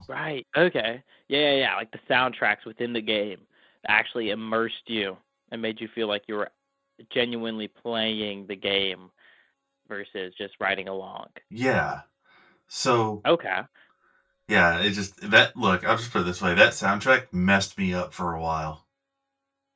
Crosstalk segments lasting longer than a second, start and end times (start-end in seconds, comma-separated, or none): none